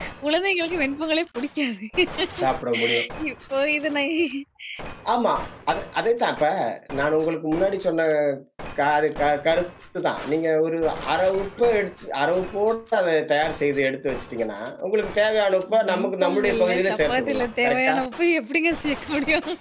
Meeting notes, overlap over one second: present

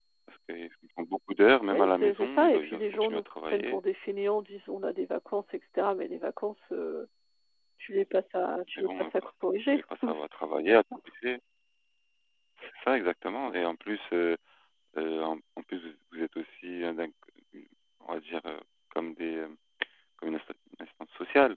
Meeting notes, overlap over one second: present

